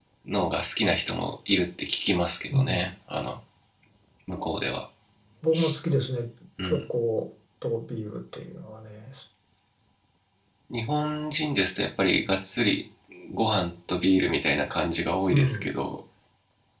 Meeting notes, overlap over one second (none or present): none